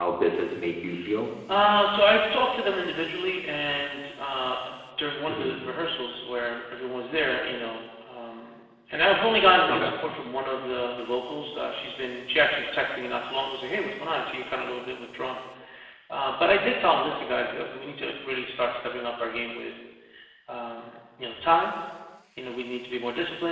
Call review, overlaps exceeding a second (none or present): none